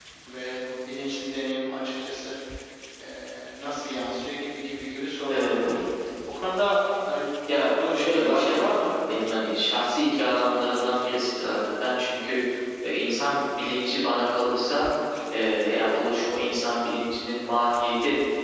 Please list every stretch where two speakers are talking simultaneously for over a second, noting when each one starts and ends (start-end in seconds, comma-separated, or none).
7.6-8.9